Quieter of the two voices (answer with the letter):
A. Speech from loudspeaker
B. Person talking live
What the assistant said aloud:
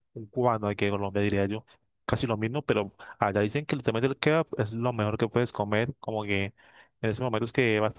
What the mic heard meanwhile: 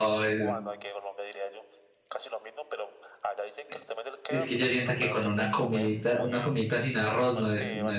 A